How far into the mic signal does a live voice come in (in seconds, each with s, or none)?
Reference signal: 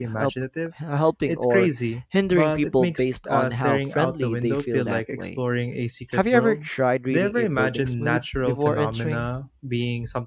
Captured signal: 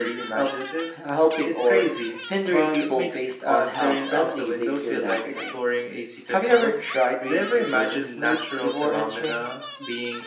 none